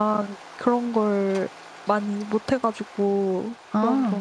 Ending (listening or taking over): listening